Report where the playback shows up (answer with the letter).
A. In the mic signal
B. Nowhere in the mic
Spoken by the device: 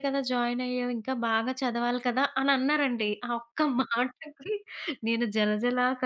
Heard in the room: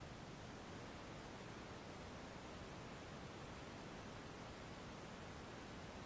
B